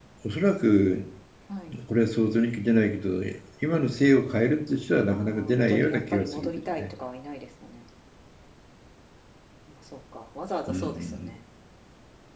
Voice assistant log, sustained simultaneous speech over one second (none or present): present